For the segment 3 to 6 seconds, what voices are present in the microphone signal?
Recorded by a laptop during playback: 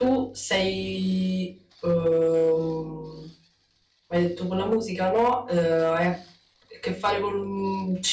user only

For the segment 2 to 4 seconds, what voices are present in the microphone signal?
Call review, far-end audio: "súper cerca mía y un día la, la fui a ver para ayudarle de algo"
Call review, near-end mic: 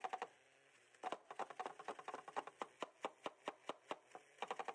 neither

